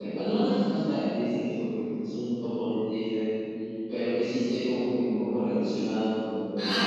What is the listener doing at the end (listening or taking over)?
taking over